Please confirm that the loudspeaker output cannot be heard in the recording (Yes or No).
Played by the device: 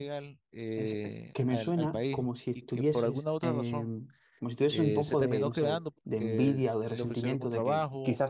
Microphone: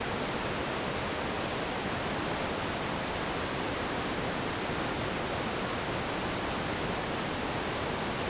Yes